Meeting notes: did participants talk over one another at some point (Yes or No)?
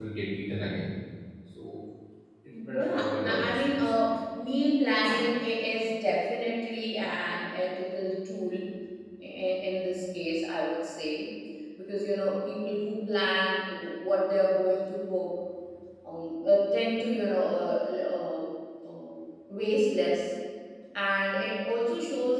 Yes